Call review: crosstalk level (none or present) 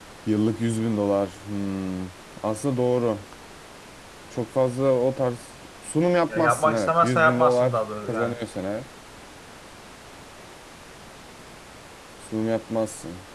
present